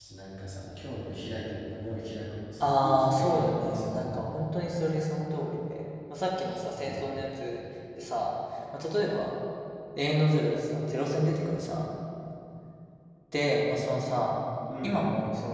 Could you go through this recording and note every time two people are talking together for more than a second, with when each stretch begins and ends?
2.6-4.4

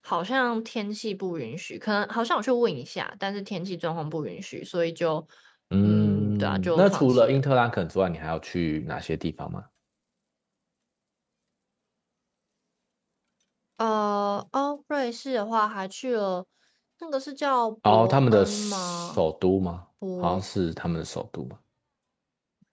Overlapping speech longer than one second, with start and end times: 5.8-7.4, 17.9-19.2

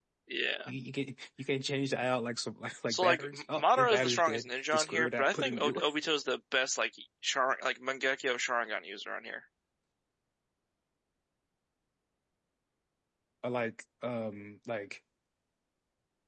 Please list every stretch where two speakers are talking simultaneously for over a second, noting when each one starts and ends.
2.9-5.8

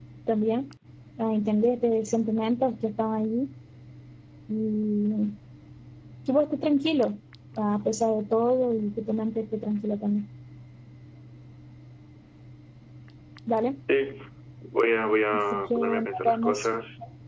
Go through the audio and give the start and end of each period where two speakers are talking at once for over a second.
15.3-16.7

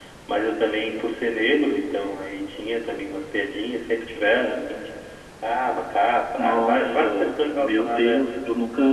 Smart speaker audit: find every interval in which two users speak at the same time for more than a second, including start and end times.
6.4-8.3

